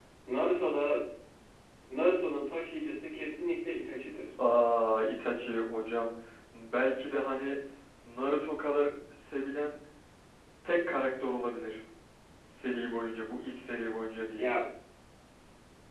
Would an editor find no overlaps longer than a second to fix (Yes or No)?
Yes